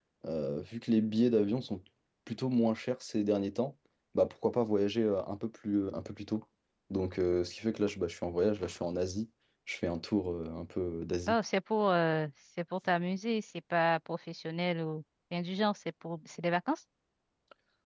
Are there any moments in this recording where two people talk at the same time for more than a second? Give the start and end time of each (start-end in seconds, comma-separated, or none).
none